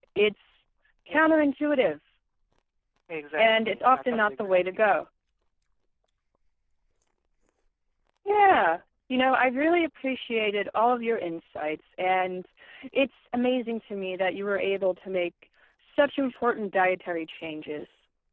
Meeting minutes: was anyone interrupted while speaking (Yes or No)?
Yes